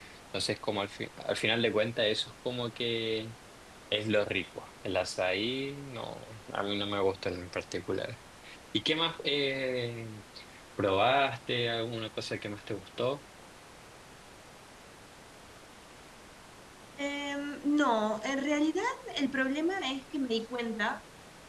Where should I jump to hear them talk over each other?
none

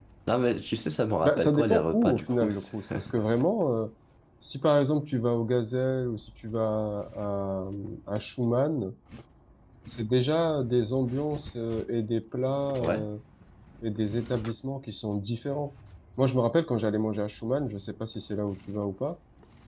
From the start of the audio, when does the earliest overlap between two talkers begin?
1.2 s

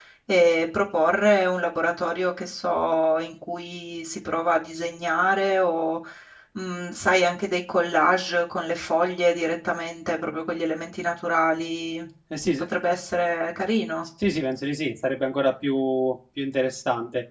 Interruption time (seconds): none

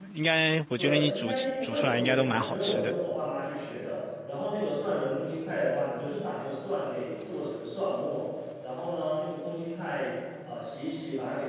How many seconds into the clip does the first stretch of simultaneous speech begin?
0.8 s

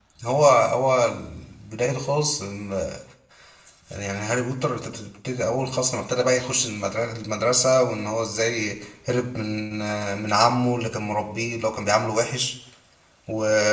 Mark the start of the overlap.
none

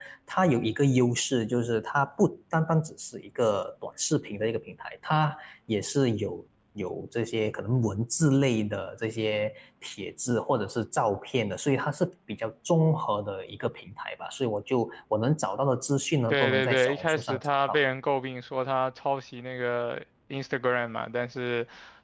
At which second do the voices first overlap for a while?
16.3 s

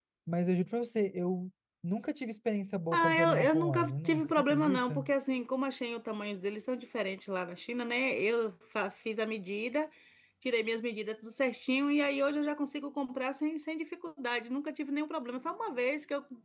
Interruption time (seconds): 2.9 s

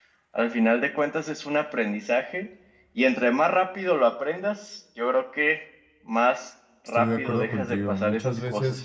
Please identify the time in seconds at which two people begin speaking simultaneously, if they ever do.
7.0 s

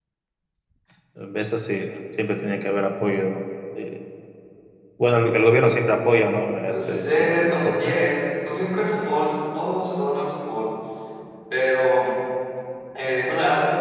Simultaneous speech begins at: 6.7 s

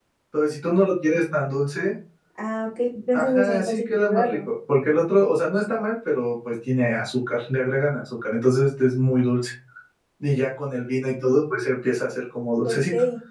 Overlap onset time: 3.1 s

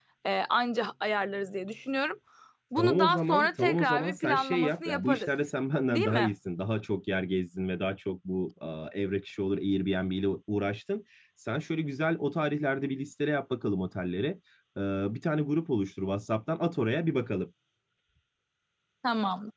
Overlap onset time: 2.8 s

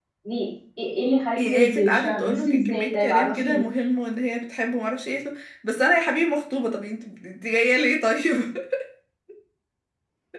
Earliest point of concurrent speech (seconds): 1.3 s

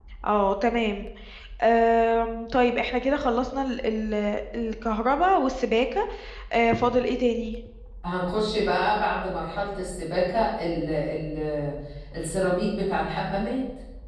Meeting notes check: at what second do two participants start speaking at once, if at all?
none

